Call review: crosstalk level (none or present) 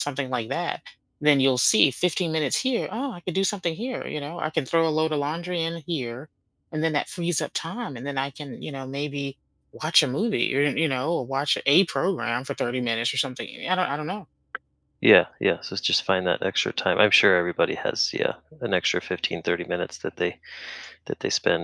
none